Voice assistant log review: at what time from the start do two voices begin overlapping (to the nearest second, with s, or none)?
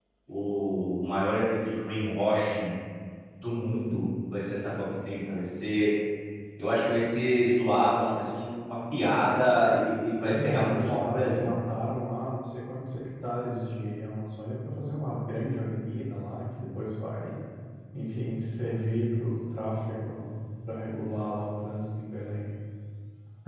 10 s